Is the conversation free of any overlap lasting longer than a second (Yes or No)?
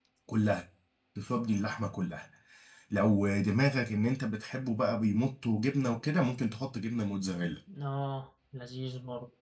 Yes